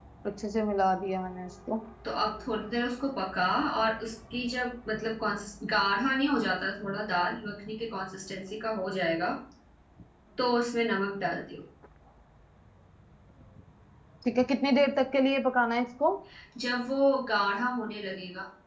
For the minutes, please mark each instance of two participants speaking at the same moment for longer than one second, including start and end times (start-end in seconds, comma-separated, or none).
none